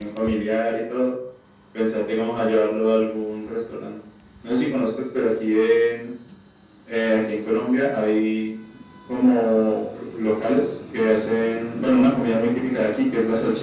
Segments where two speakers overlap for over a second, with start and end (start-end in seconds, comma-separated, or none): none